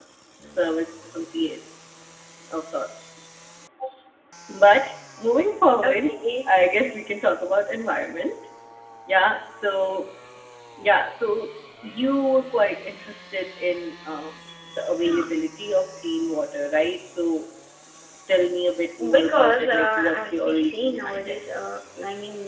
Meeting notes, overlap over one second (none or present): present